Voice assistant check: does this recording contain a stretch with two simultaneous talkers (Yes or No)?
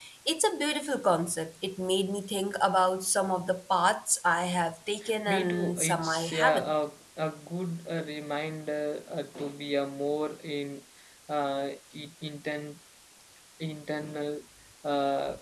Yes